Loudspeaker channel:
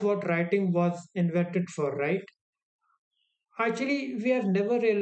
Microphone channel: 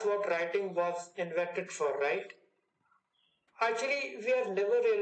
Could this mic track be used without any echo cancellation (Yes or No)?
No